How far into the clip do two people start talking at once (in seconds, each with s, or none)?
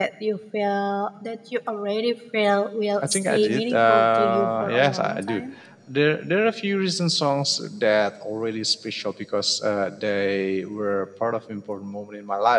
3.0 s